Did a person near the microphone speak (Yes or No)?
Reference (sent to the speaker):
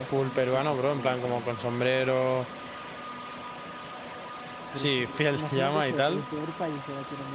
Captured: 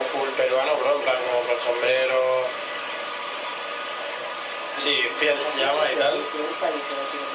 No